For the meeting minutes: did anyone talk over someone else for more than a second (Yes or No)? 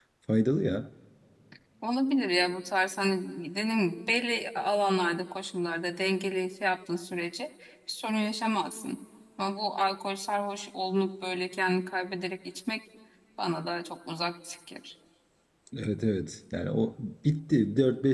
No